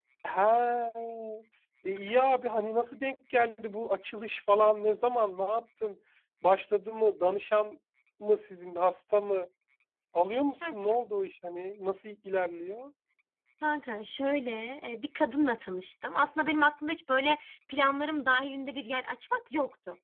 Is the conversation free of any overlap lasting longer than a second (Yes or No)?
Yes